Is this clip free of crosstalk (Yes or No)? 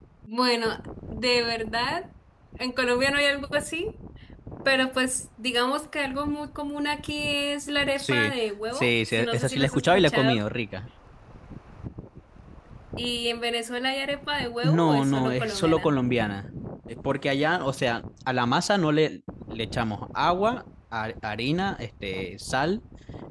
No